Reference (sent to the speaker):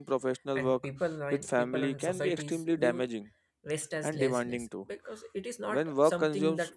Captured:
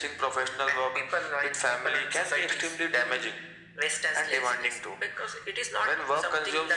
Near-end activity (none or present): none